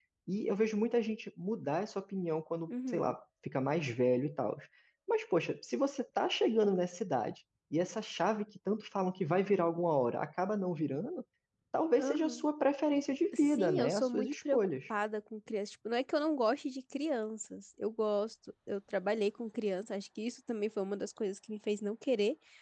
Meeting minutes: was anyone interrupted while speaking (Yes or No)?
Yes